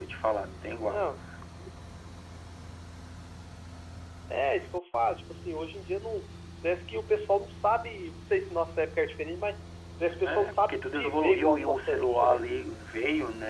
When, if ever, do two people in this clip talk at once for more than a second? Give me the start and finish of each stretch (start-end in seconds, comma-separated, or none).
10.2-12.4